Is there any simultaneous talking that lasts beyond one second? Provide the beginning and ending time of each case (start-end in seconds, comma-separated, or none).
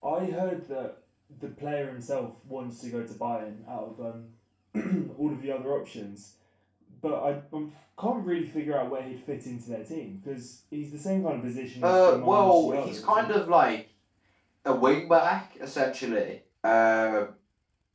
11.8-13.4